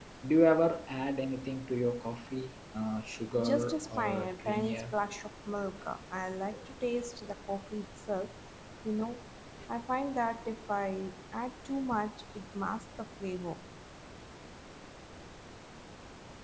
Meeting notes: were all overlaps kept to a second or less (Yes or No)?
No